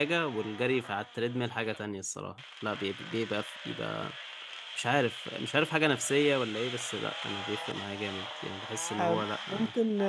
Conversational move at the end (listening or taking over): taking over